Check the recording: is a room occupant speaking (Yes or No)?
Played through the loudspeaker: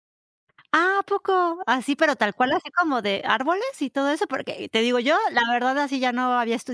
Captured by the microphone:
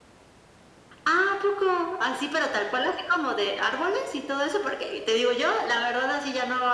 No